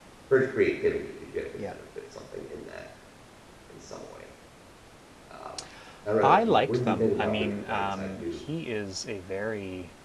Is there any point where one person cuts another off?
Yes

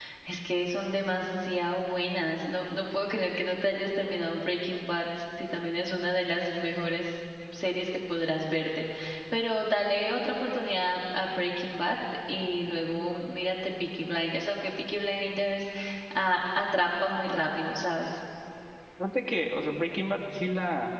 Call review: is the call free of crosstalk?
Yes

